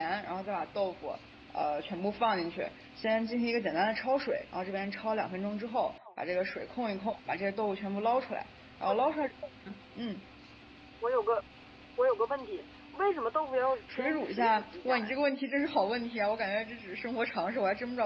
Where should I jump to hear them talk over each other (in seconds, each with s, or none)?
13.9 s